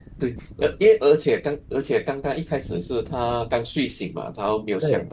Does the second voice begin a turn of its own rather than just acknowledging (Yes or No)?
No